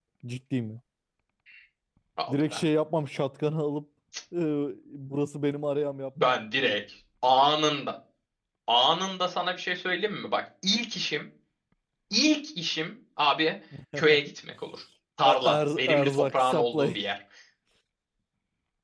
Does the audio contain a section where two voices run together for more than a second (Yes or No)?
Yes